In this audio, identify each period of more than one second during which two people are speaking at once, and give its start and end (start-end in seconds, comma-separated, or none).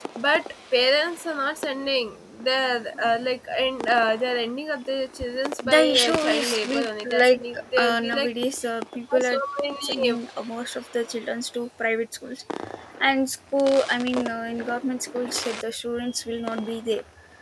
5.6-8.3